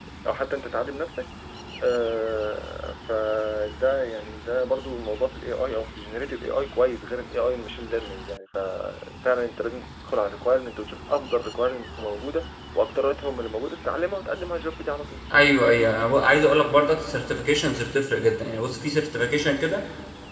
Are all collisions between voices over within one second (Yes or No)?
Yes